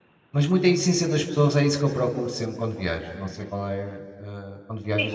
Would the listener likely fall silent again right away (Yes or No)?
No